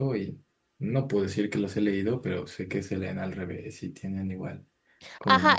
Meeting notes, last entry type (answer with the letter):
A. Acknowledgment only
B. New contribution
B